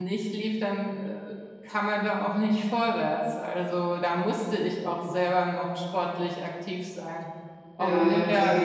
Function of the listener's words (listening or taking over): taking over